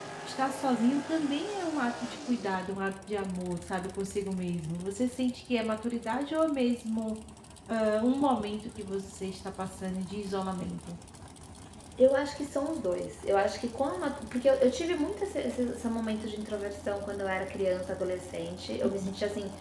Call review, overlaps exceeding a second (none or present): none